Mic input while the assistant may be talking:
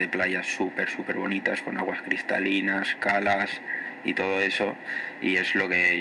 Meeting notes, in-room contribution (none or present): none